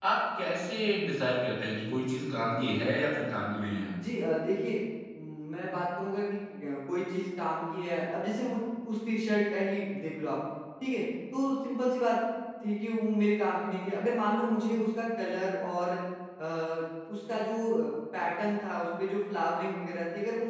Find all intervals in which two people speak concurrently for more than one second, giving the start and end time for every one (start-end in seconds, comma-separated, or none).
none